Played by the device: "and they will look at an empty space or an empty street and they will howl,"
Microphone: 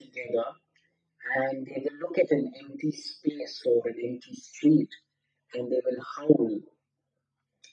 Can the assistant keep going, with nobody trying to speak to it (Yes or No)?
Yes